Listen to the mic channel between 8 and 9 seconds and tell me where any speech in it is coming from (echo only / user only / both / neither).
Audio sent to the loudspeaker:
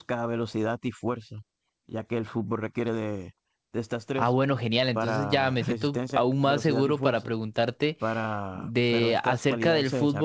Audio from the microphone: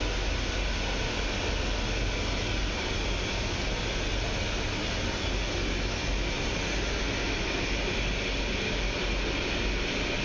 neither